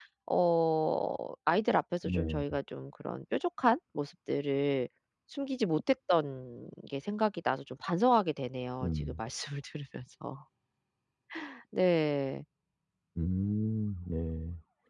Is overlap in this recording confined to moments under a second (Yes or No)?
Yes